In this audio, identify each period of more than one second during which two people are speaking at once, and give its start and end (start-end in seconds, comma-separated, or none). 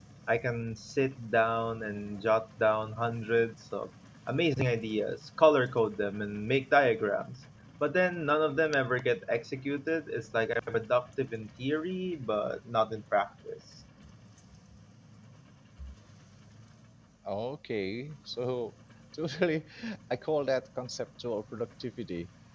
none